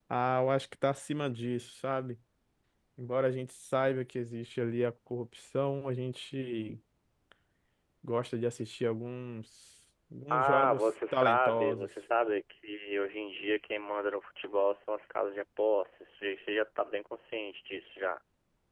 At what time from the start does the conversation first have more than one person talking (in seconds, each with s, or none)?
10.3 s